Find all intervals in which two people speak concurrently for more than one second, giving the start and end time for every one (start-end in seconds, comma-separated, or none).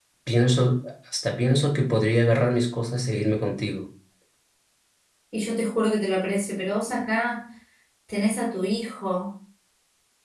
none